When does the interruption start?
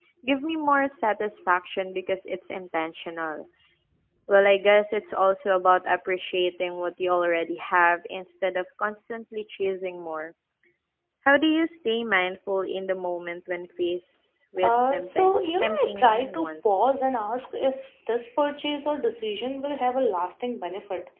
14.6 s

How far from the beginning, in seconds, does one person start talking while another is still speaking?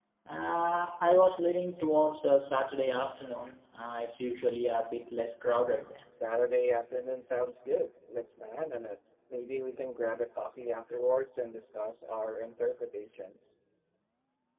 none

